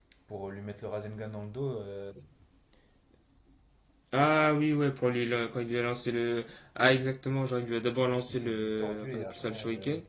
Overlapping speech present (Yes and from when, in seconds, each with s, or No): Yes, from 8.3 s